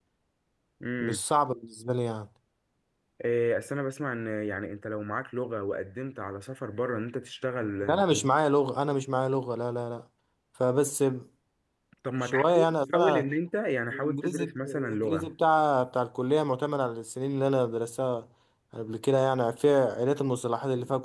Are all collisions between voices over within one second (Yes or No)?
No